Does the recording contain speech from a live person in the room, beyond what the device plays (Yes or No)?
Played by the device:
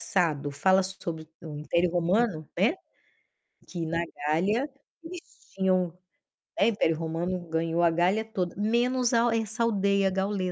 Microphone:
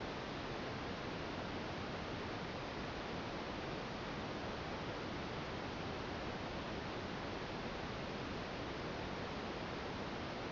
No